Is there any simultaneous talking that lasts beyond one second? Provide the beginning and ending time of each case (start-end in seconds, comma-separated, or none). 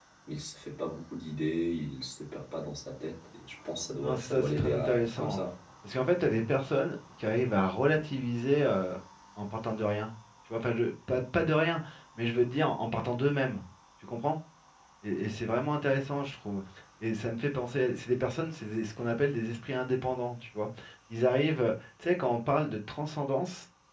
4.0-5.4